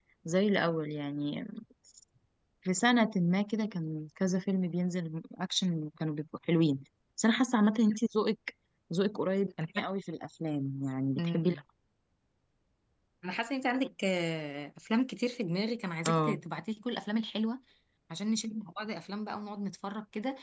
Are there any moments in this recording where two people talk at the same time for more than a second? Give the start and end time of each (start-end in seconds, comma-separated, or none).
none